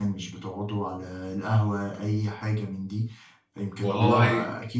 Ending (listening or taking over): listening